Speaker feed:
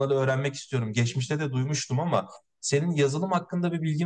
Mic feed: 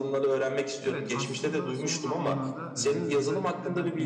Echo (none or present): present